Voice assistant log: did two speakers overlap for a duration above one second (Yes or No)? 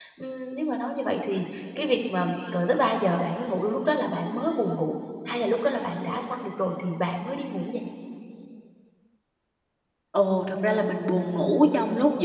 No